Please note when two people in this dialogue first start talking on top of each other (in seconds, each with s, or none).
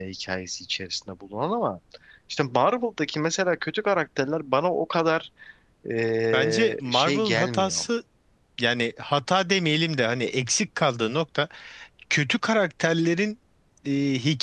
6.3 s